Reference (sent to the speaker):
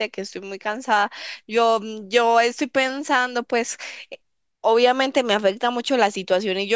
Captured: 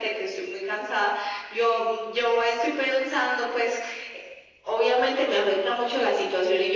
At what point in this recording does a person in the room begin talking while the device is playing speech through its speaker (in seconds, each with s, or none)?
none